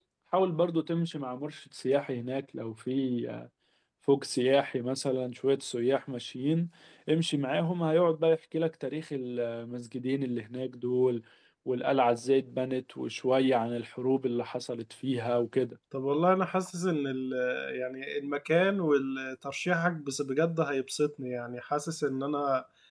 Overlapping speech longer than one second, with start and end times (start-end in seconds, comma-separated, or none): none